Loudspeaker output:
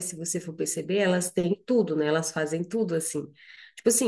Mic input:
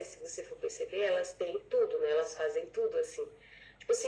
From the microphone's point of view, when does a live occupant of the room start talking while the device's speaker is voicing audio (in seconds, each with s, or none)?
none